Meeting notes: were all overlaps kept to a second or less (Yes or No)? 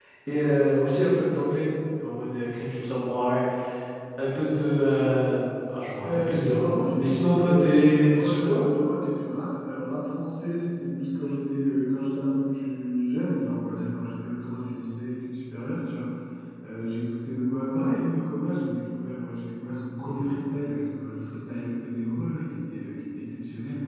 No